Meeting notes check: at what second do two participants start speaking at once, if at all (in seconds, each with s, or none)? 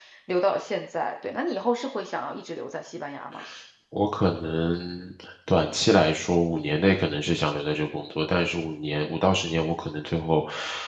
none